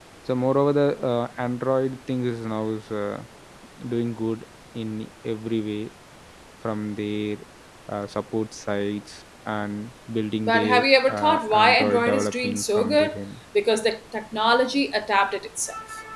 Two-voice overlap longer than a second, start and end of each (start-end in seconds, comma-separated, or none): 10.4-13.1